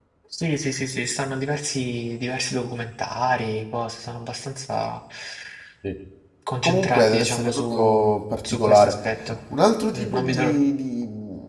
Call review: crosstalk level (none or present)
present